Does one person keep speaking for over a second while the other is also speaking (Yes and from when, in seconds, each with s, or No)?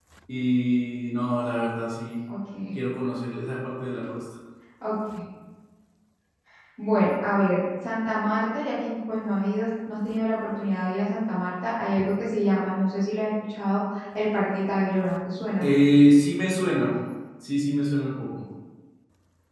No